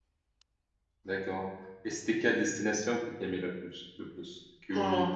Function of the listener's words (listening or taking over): listening